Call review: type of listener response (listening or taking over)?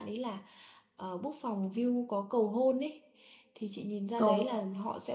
listening